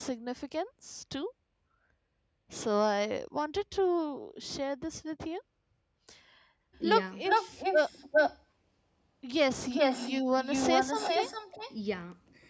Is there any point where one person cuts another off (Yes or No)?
Yes